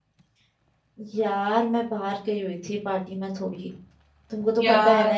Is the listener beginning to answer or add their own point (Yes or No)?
No